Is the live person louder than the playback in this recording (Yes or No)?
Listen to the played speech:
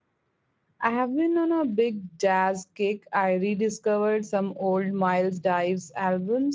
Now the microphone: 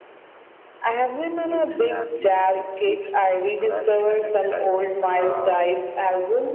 No